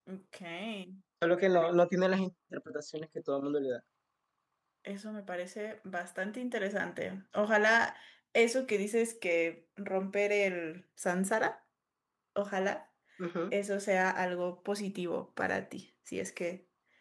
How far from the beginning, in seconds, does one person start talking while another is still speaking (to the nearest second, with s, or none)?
none